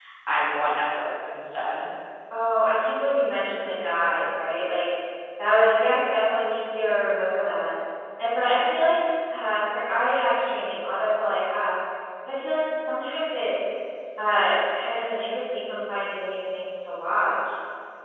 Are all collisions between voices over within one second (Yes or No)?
Yes